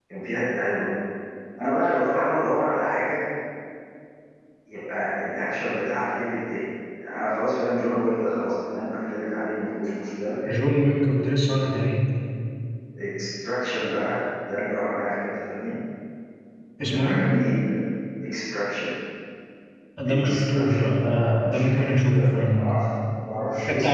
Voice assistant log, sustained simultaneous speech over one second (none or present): present